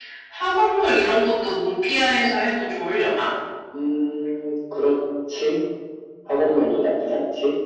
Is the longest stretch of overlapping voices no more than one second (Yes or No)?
Yes